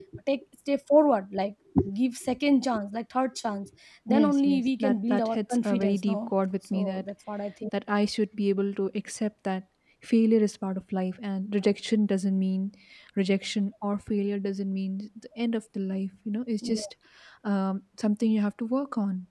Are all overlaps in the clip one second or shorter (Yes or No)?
No